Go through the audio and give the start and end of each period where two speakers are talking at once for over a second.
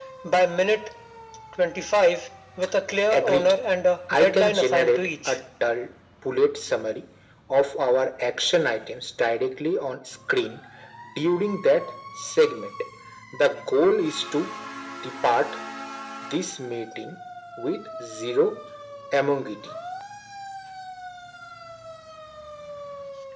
4.1-5.4

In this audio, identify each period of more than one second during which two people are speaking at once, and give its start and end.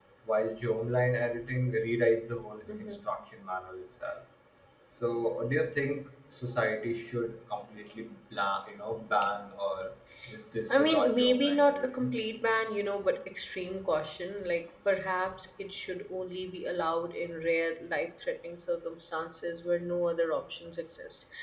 10.7-12.1

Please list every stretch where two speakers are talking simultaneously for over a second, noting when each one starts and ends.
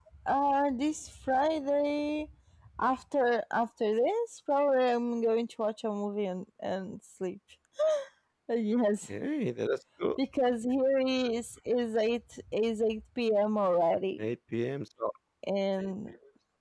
none

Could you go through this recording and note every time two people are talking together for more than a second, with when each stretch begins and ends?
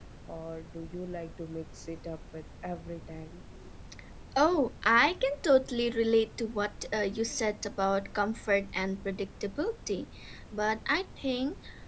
none

